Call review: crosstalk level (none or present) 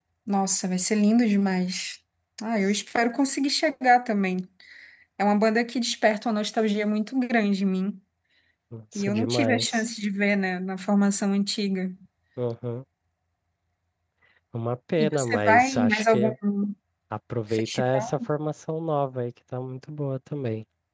present